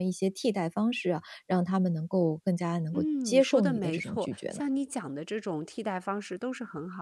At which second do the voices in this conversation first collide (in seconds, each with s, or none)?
2.9 s